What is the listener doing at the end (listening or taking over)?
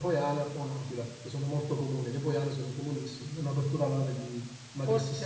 taking over